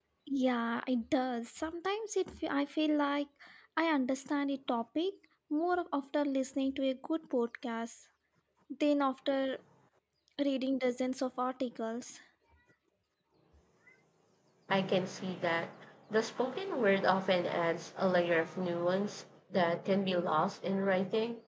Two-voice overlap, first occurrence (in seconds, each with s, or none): none